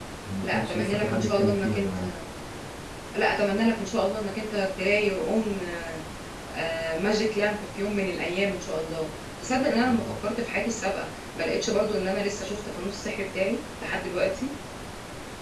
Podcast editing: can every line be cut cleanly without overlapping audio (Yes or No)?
No